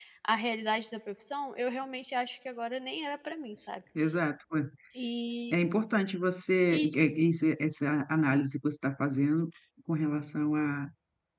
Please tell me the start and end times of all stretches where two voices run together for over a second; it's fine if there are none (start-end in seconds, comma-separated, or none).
none